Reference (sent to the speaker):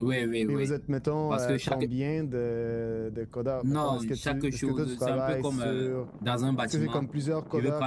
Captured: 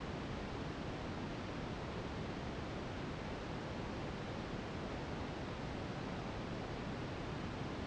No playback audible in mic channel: Yes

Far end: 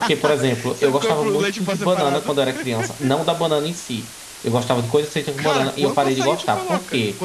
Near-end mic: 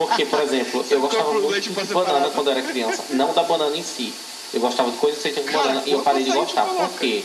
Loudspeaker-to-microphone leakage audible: Yes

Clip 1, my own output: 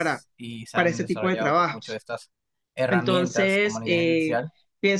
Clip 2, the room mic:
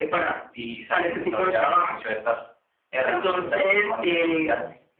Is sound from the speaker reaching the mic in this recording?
Yes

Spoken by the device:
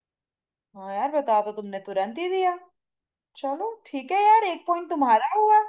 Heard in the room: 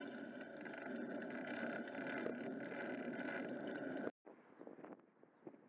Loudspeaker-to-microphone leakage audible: No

